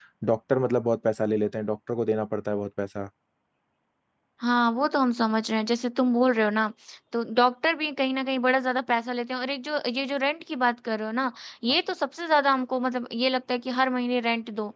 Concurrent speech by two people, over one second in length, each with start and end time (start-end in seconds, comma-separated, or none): none